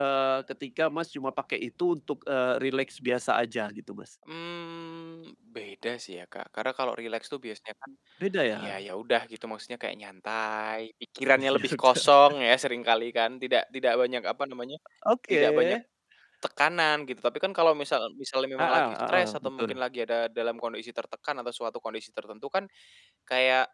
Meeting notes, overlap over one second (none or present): present